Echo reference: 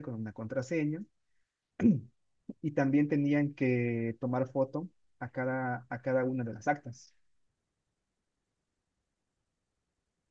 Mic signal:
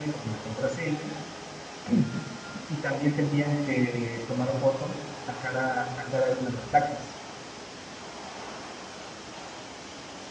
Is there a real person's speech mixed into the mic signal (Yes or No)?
No